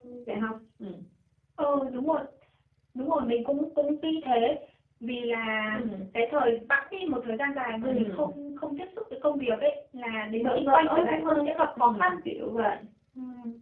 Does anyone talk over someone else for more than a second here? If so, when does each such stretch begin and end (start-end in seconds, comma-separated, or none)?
10.4-12.1